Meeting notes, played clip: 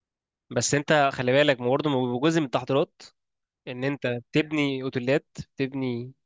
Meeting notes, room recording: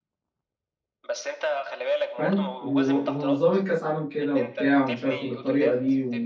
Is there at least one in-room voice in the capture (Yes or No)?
Yes